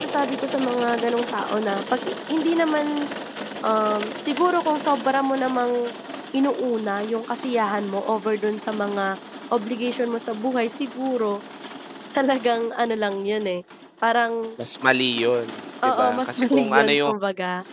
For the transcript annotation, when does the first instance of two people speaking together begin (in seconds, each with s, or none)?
15.8 s